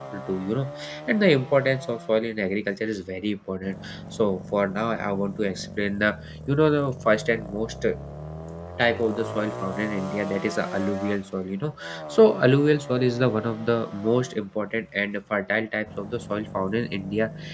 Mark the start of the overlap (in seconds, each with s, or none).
none